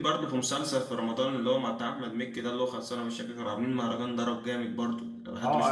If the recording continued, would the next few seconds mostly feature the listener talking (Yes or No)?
Yes